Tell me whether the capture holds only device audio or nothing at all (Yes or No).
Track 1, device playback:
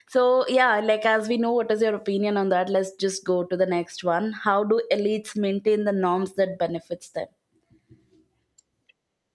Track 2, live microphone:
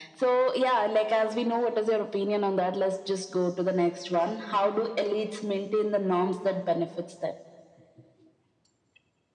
Yes